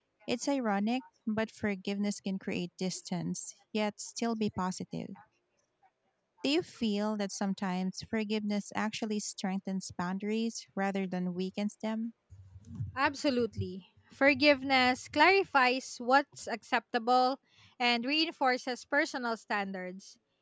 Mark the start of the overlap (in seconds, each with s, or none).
none